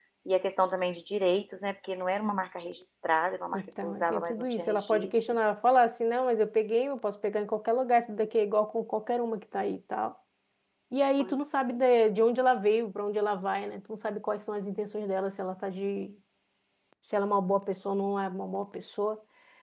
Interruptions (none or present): present